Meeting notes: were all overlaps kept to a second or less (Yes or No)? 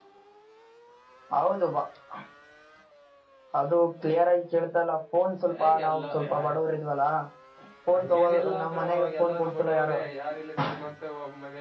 No